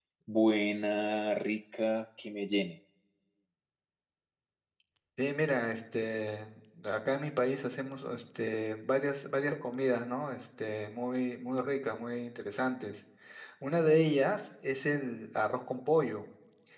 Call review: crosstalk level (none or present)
none